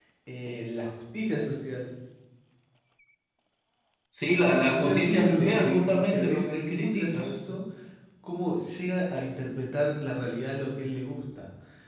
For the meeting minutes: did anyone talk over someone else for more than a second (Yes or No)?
Yes